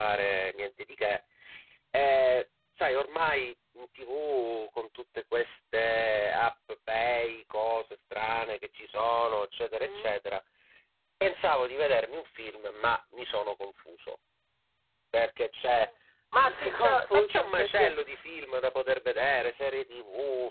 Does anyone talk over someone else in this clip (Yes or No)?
Yes